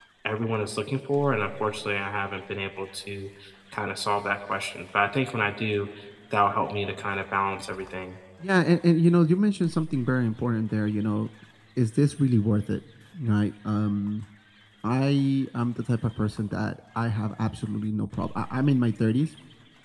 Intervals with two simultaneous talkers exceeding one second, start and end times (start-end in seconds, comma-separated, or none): none